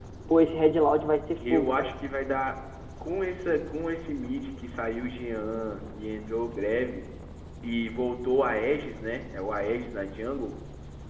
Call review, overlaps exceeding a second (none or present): none